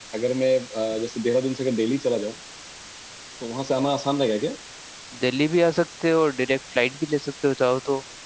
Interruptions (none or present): none